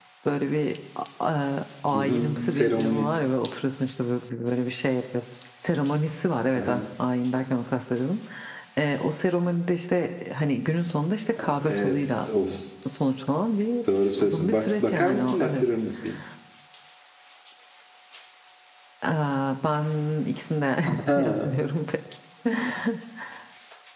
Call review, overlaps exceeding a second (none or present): present